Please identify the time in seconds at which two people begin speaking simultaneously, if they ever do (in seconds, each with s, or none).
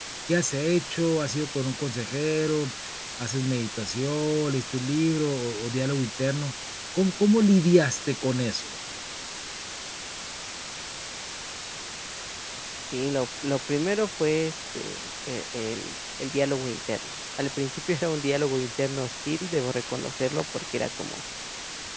none